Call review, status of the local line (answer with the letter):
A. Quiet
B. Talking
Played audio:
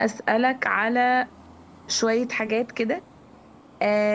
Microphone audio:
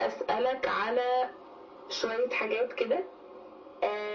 A